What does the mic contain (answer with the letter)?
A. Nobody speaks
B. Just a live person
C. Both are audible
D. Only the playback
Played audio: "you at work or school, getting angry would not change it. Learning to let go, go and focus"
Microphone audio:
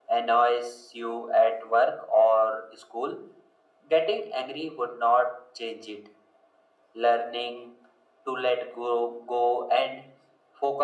D